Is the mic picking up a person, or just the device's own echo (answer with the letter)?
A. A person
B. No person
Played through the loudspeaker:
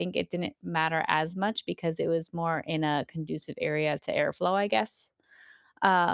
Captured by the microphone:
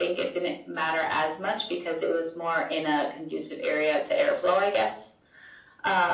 B